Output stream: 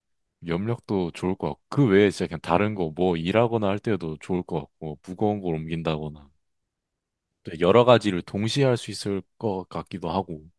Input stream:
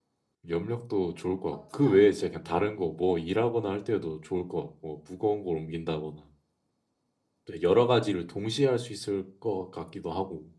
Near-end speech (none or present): present